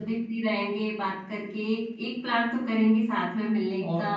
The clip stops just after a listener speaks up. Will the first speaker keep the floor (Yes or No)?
Yes